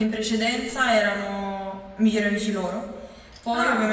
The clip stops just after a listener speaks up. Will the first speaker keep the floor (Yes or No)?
Yes